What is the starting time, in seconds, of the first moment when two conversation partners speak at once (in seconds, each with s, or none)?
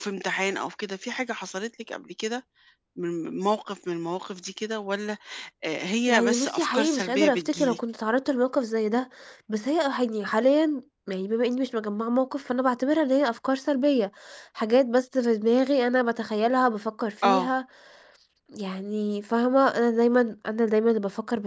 6.1 s